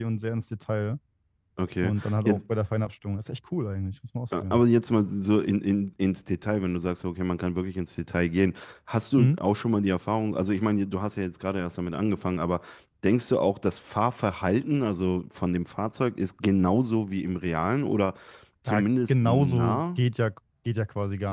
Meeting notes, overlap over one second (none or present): present